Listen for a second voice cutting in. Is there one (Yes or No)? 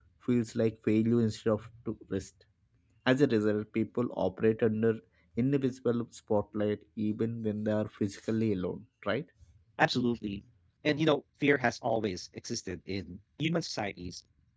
No